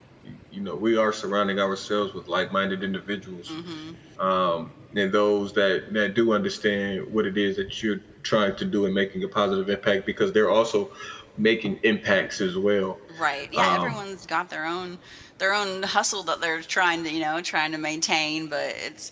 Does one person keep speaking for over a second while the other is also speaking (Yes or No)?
No